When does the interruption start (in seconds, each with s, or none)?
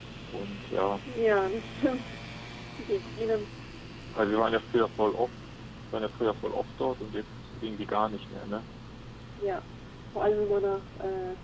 none